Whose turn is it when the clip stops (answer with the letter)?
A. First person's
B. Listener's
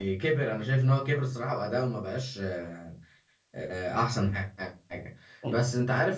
A